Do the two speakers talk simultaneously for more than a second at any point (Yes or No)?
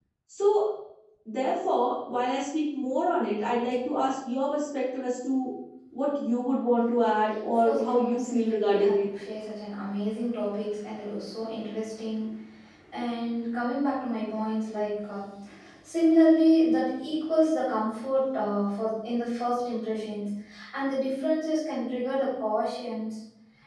Yes